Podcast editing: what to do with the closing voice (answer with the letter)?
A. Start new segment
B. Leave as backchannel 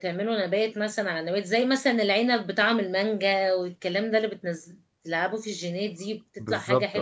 B